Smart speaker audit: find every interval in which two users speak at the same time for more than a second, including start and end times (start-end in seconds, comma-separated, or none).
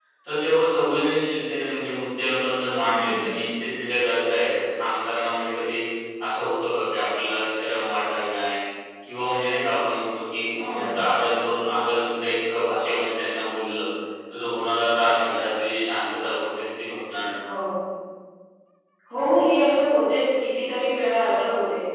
none